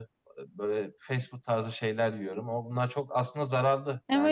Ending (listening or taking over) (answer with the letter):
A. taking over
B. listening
A